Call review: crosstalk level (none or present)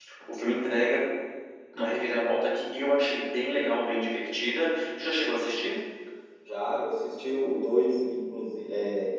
none